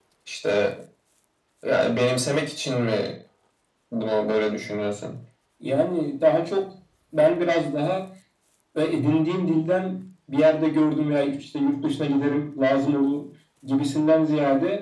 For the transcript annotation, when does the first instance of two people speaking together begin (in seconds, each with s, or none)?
none